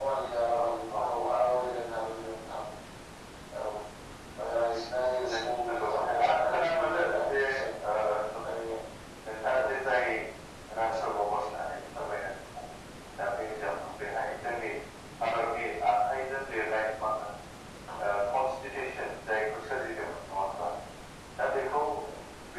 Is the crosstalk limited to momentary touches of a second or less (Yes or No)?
No